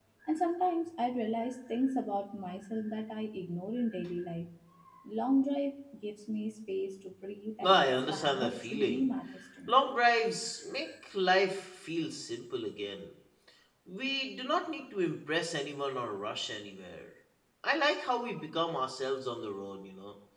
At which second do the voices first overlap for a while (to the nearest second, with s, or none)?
8 s